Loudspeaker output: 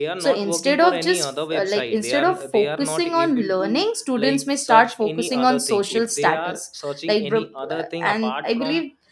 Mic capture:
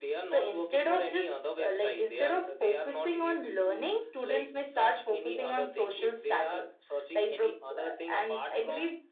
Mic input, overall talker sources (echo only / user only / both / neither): echo only